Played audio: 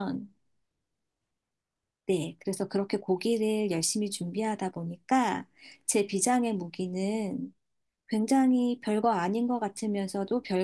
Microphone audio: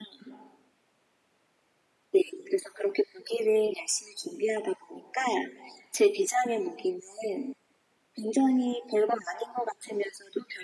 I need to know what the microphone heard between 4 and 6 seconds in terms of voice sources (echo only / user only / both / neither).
echo only